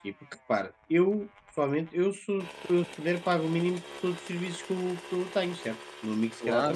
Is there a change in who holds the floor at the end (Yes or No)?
Yes